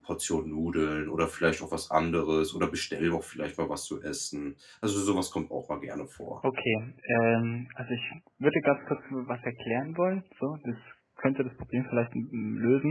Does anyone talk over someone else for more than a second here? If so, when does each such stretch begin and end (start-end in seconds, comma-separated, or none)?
none